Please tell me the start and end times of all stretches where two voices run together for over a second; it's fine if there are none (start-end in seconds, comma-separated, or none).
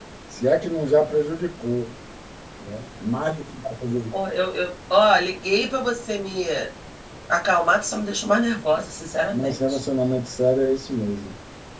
none